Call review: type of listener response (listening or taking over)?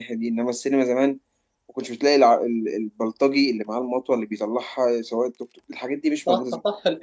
taking over